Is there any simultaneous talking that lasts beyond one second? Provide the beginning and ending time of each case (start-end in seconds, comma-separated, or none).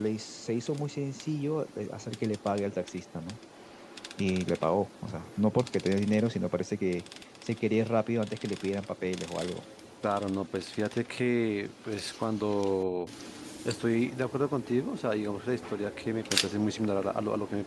none